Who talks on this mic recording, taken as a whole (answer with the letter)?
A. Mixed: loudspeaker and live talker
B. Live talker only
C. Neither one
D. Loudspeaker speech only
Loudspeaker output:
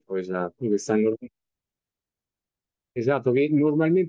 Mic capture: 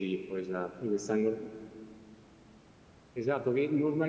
D